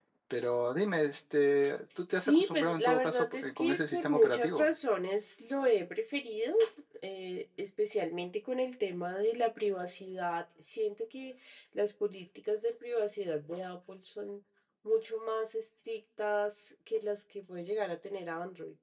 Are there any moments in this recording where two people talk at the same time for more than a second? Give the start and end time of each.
2.1-4.7

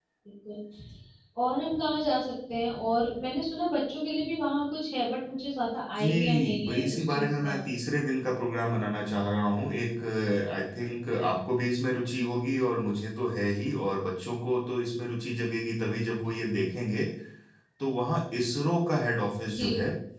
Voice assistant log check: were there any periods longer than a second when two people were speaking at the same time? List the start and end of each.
6.0-7.6

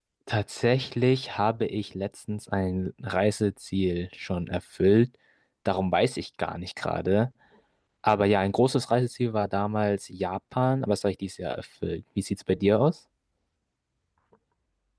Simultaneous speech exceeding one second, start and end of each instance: none

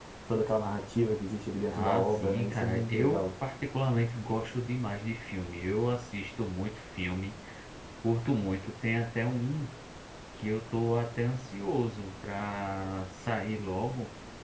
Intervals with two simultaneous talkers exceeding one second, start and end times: 1.7-3.3

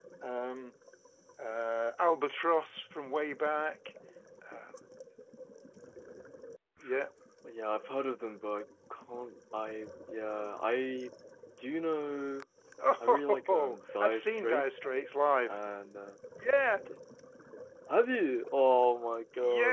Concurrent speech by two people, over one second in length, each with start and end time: 13.0-14.6

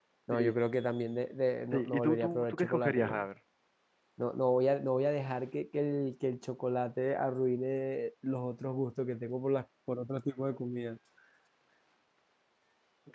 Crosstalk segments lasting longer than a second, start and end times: 1.7-3.3

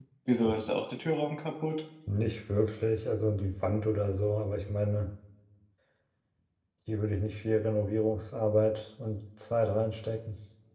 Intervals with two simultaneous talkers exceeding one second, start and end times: none

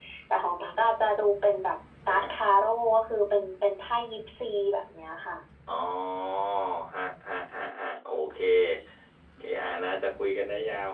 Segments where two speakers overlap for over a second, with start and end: none

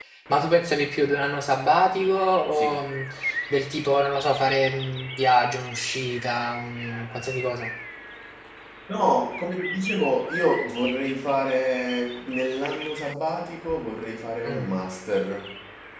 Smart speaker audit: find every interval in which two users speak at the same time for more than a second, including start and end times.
none

